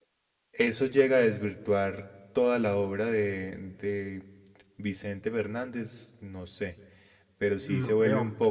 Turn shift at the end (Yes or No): No